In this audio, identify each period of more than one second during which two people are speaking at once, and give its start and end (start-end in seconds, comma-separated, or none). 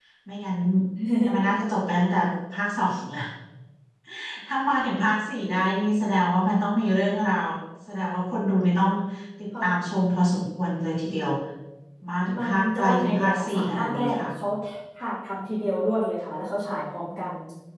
12.4-14.3